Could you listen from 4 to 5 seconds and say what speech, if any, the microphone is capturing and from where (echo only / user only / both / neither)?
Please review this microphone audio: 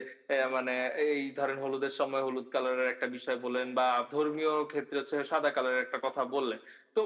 echo only